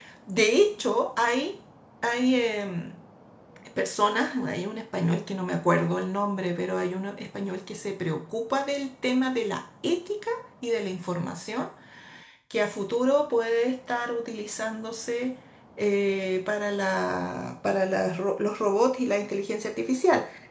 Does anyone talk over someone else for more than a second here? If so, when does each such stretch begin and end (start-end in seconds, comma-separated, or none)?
none